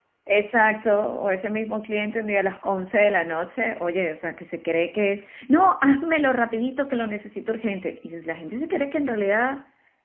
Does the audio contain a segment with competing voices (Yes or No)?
No